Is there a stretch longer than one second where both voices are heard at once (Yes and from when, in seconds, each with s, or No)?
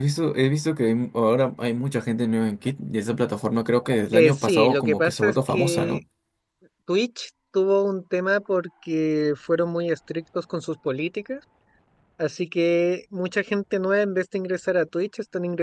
Yes, from 4.1 s